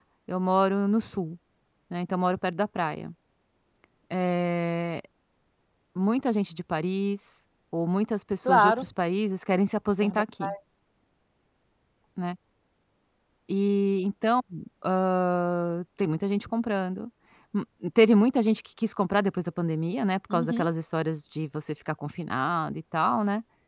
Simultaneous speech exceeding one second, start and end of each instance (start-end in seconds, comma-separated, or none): none